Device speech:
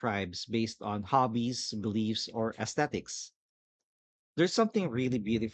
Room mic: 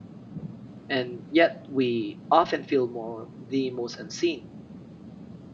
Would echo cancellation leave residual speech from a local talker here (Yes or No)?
Yes